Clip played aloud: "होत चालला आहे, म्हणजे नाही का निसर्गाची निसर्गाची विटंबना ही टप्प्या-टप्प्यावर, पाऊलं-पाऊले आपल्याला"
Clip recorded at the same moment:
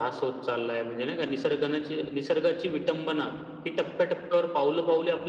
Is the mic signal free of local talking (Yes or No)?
Yes